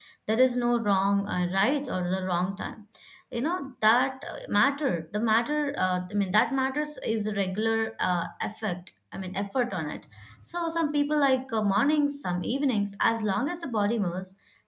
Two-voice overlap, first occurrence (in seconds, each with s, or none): none